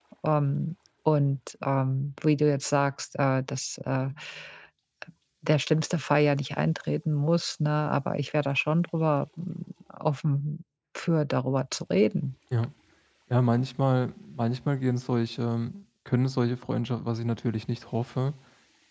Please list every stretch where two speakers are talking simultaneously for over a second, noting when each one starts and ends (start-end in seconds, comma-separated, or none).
none